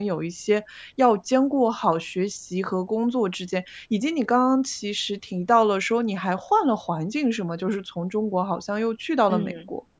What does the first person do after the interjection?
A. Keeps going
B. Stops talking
B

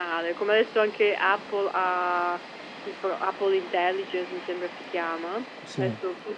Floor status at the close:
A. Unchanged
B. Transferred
A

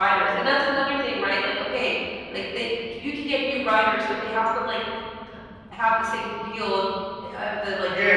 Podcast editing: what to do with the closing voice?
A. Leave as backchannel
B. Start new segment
B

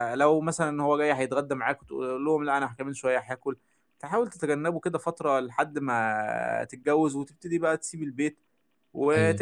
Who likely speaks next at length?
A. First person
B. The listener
A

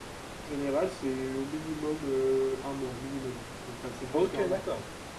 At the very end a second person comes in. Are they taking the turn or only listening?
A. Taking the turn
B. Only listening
A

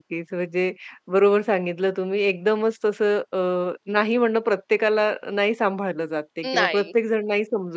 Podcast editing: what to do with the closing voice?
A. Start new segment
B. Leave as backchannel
B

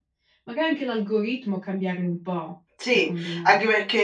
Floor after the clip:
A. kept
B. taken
B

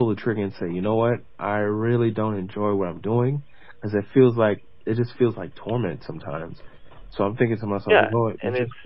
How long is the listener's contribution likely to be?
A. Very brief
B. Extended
B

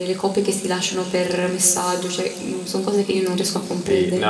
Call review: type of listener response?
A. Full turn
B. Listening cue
A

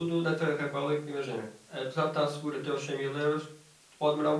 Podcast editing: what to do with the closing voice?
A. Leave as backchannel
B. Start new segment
A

